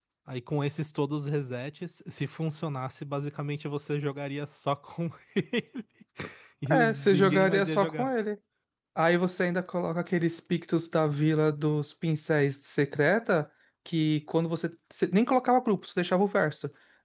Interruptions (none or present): present